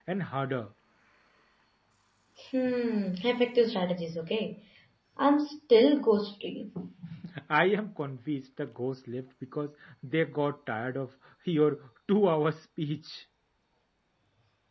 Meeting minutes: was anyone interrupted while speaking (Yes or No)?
No